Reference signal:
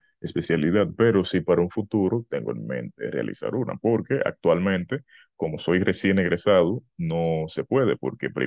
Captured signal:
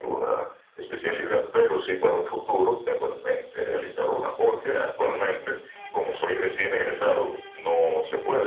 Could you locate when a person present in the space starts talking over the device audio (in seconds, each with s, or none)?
none